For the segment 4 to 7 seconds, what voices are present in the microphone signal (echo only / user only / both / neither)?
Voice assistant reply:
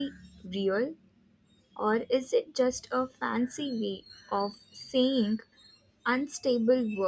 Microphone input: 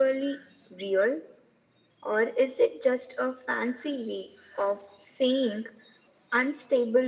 echo only